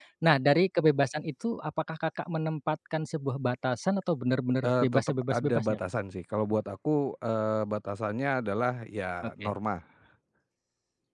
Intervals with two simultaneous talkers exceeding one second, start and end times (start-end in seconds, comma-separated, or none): 4.6-5.8